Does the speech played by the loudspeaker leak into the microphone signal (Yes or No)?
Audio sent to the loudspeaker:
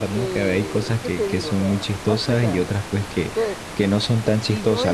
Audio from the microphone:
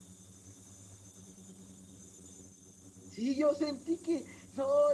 No